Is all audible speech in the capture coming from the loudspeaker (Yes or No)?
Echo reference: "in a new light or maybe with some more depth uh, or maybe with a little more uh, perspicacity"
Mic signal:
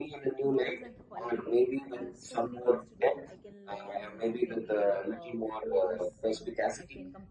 No